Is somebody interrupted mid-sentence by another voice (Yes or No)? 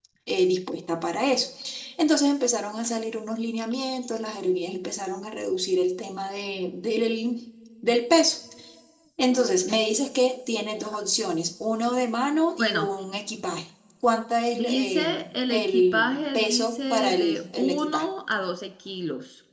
Yes